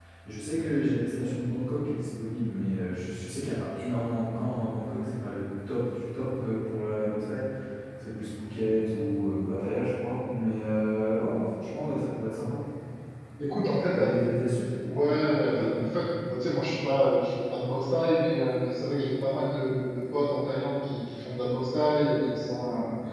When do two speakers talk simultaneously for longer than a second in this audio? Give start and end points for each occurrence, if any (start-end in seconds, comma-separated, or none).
none